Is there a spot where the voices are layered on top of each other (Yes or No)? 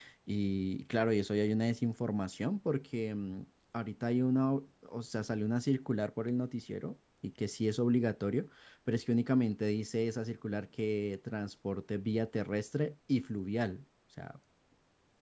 No